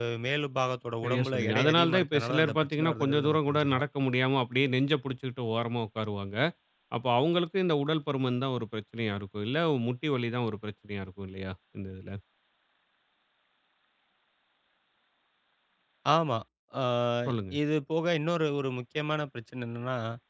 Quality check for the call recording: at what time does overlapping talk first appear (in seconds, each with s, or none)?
1.0 s